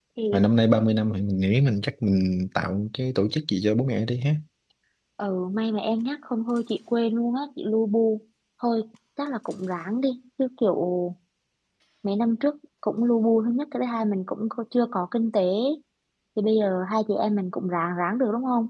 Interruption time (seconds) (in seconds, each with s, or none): none